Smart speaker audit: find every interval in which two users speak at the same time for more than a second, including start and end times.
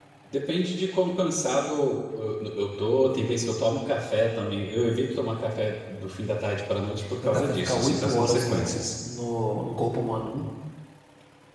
7.2-8.8

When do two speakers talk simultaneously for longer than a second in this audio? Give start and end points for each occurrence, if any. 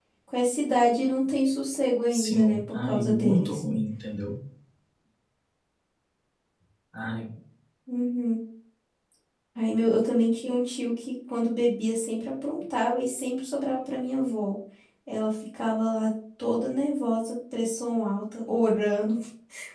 2.1-3.6

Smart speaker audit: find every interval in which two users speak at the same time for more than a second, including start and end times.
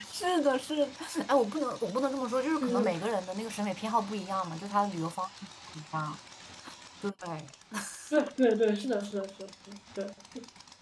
none

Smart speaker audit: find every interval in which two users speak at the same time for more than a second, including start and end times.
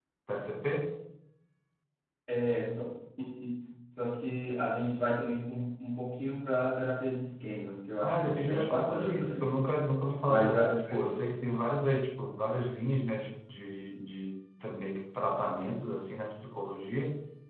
8.0-9.6

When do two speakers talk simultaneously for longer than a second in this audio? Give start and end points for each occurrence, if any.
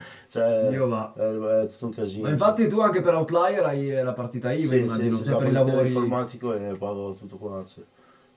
4.6-6.2

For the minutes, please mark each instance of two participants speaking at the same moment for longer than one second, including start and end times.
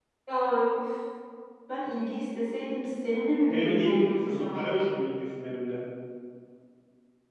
3.5-4.9

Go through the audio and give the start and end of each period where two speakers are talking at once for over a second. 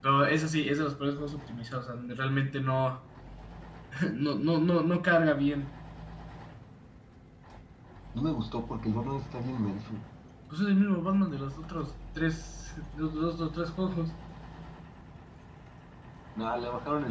none

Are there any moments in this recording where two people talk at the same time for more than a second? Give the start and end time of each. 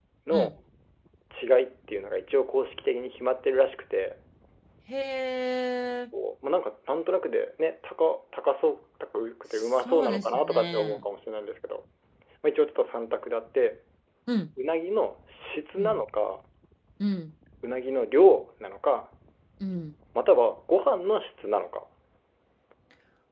9.5-11.0

